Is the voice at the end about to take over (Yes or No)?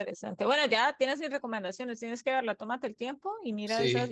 No